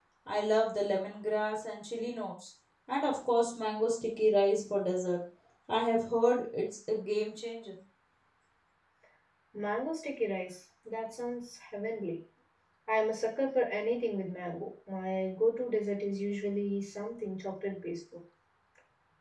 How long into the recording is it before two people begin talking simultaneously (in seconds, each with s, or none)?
none